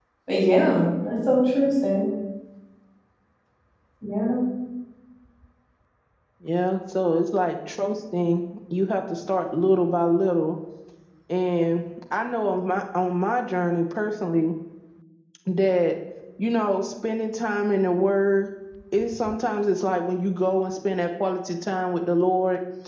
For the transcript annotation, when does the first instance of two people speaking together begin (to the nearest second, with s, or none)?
none